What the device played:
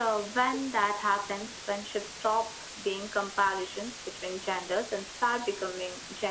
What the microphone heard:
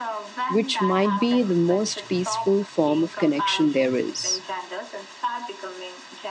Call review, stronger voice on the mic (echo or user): user